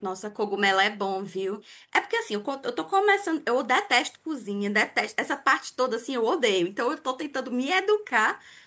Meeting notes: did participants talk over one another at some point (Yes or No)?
No